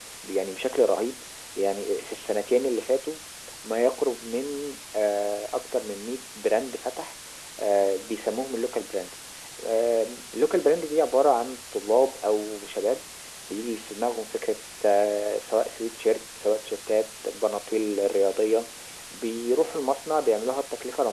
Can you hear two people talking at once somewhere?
No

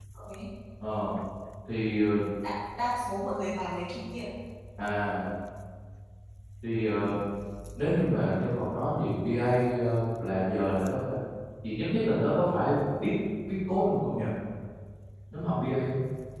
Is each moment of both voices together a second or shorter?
Yes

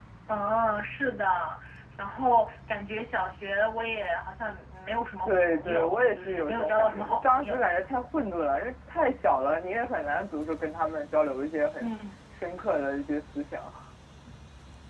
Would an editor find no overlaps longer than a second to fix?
No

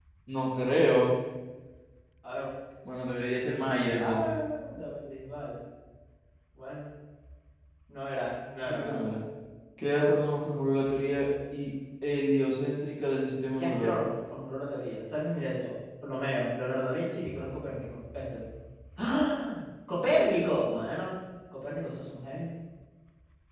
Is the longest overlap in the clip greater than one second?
No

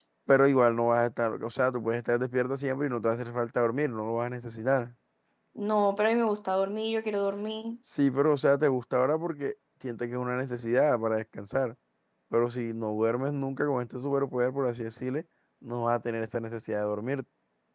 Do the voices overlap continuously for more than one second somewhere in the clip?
No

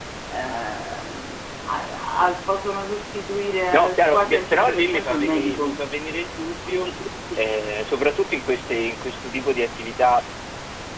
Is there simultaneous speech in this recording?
Yes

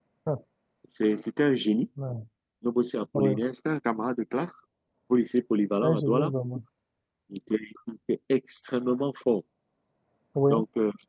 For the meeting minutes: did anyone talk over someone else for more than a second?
No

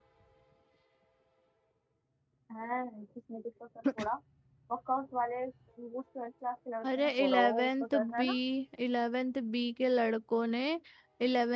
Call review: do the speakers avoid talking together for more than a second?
No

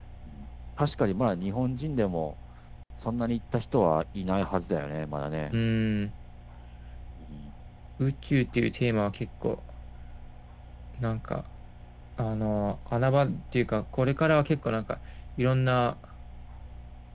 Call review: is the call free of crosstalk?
Yes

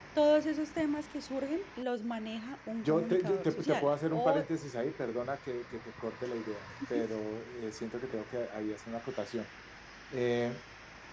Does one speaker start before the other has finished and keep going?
Yes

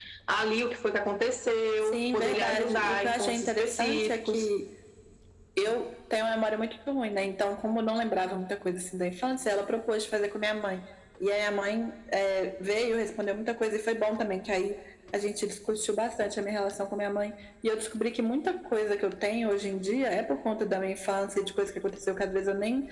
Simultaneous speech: Yes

